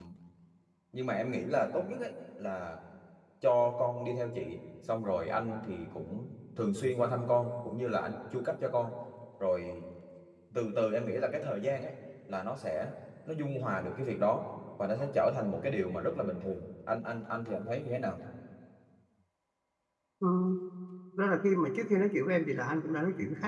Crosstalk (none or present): none